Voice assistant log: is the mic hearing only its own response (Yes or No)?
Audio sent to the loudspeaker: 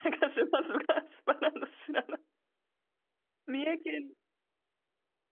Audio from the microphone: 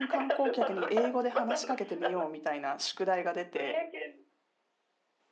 No